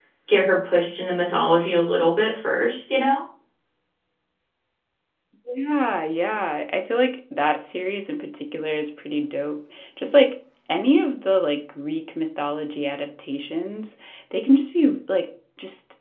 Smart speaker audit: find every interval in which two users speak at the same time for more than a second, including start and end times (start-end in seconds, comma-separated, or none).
none